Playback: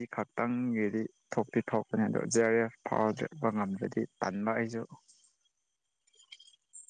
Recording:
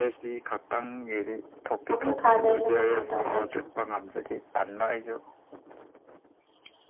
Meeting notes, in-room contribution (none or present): present